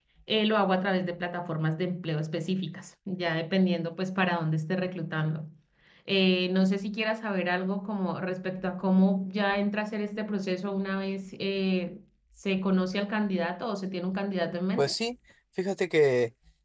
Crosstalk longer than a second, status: none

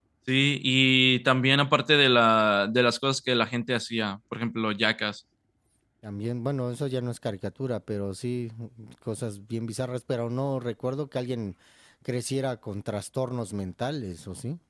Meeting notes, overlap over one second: none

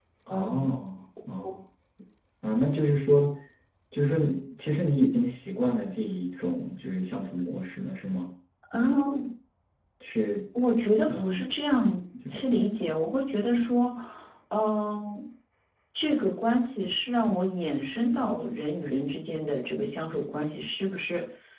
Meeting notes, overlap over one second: none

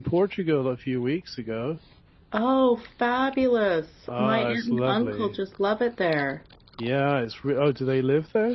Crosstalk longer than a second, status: present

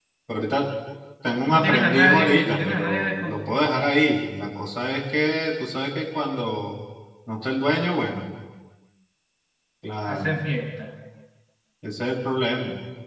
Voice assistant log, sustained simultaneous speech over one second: present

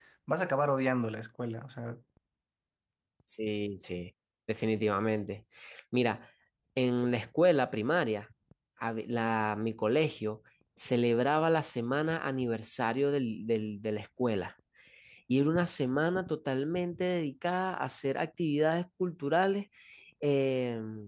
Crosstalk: none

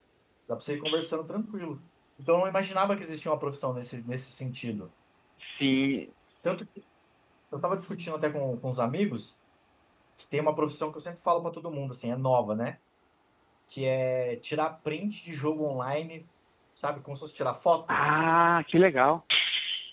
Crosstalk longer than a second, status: none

